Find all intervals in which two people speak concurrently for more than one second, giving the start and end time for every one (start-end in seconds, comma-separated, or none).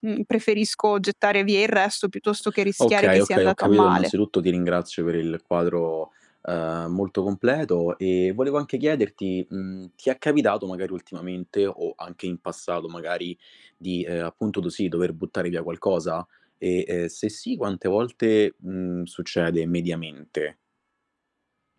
2.8-4.1